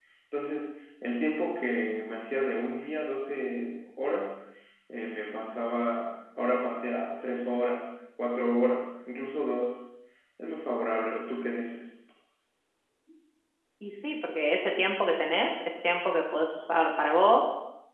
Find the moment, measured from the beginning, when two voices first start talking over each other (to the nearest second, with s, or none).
none